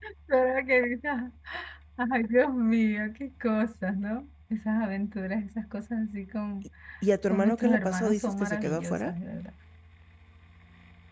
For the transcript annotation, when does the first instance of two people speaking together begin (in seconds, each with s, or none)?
7.3 s